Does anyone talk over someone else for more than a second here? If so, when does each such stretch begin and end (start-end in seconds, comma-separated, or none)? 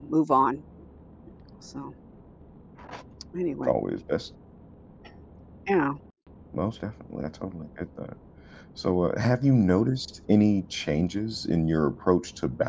none